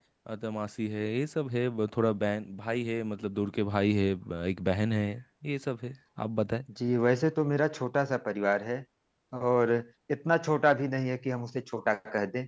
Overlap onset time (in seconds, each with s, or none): none